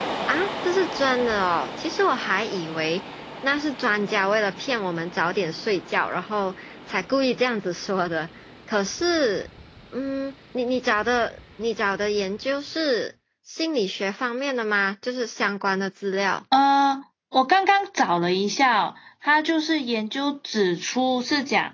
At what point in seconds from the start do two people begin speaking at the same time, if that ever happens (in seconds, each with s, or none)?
none